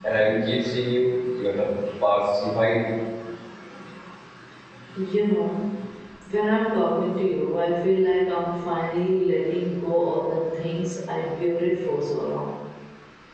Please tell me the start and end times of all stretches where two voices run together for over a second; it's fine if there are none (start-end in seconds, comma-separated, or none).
none